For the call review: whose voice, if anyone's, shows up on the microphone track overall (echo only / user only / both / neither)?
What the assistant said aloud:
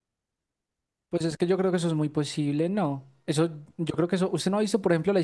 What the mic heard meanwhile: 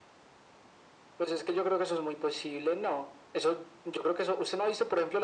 echo only